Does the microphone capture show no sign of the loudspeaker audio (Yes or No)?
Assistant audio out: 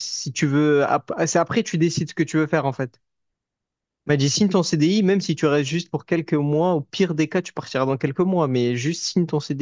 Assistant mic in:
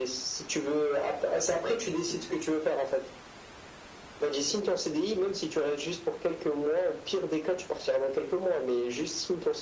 No